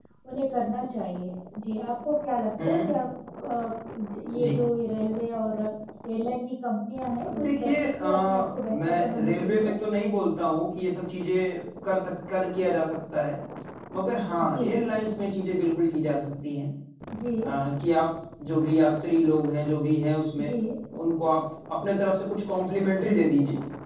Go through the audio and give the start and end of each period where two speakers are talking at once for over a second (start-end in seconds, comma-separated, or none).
7.2-9.7